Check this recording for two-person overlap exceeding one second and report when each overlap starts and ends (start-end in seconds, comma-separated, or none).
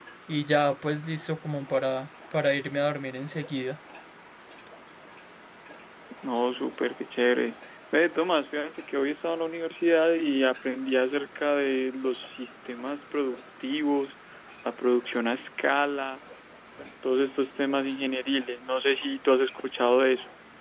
none